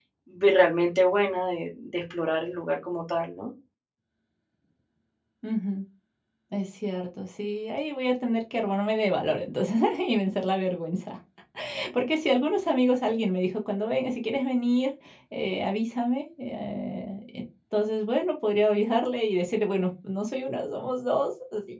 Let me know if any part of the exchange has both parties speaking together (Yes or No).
No